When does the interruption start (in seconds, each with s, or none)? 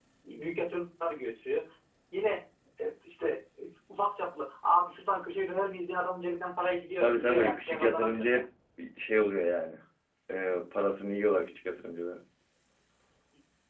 7.0 s